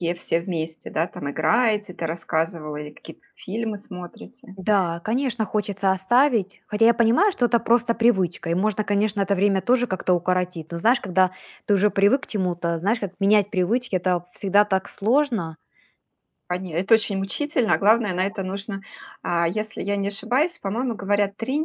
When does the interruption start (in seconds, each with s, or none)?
none